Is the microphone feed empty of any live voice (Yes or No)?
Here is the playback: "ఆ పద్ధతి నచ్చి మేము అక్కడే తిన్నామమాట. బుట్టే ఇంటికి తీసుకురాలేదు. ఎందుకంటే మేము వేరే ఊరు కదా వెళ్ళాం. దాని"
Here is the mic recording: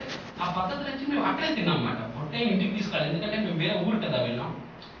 Yes